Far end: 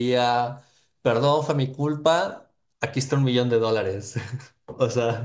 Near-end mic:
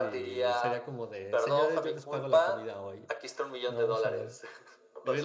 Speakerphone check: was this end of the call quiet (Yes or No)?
No